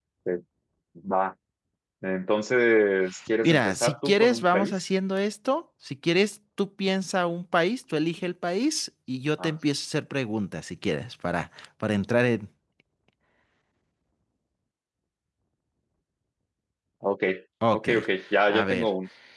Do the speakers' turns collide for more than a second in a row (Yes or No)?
Yes